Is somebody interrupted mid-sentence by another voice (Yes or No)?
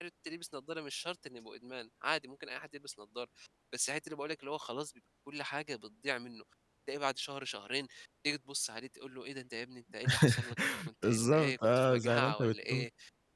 Yes